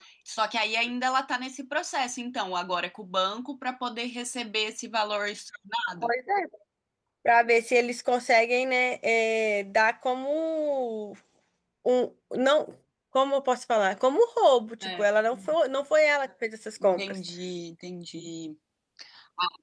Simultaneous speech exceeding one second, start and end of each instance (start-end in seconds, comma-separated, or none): none